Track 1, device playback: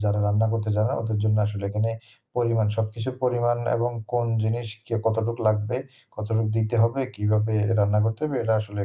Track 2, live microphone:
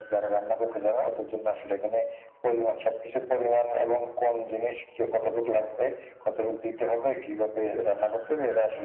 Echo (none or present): present